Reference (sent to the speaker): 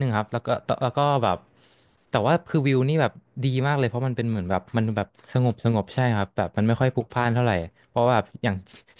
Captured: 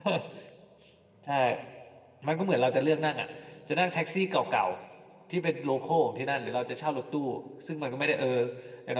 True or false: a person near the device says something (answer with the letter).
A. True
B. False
A